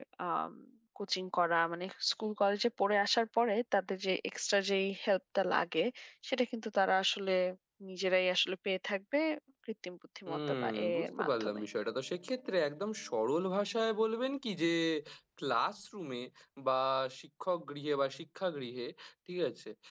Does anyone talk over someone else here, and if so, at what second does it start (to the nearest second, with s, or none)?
10 s